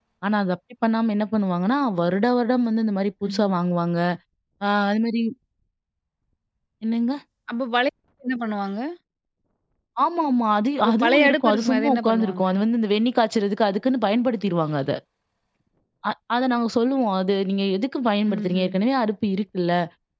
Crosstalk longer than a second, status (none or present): present